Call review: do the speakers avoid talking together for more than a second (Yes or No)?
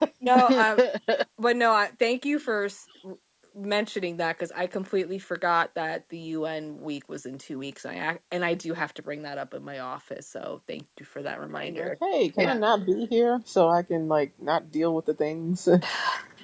Yes